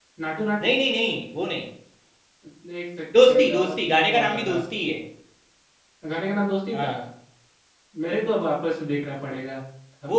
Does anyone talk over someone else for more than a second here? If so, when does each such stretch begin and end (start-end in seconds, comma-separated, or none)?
3.3-4.6